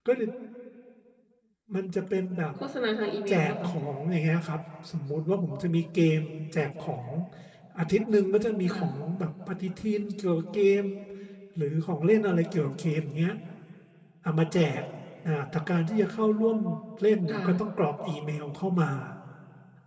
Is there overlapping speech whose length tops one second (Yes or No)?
No